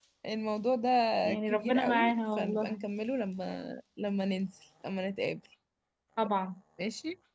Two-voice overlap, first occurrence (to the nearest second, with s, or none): 1 s